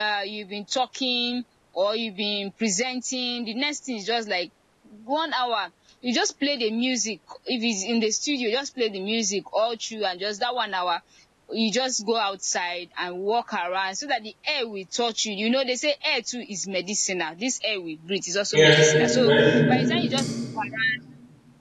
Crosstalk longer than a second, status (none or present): present